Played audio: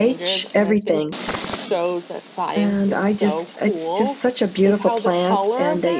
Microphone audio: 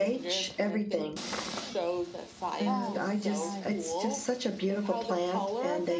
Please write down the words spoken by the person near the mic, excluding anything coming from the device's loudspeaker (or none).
oh nice